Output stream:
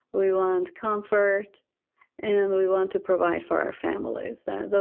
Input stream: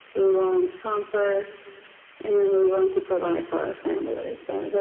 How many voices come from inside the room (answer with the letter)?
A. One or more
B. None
B